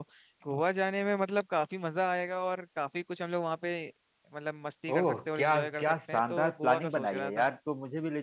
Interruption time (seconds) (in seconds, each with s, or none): 4.9 s